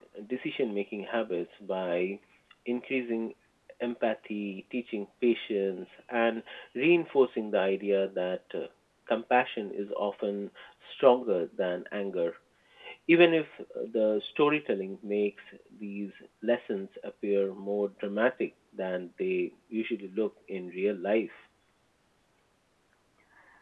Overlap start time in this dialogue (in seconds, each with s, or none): none